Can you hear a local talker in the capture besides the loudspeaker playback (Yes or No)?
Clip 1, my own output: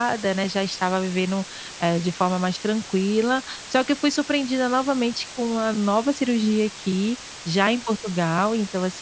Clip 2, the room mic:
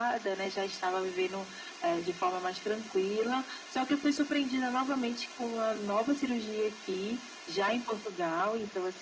No